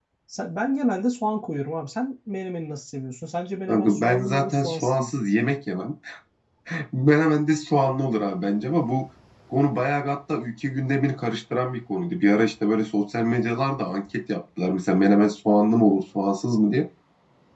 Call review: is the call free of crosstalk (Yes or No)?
No